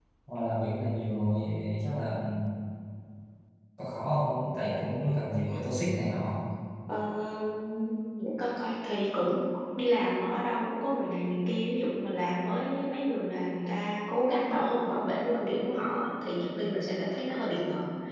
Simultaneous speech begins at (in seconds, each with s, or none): none